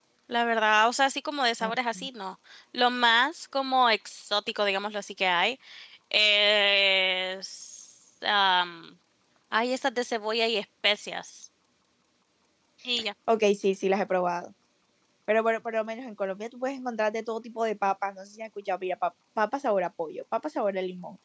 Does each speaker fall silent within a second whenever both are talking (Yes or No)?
Yes